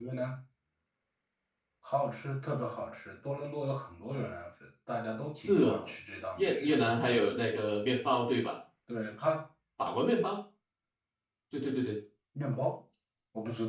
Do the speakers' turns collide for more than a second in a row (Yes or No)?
No